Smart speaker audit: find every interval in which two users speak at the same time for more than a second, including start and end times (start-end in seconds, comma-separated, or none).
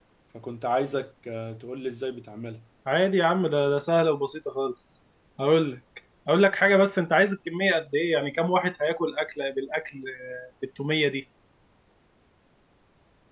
none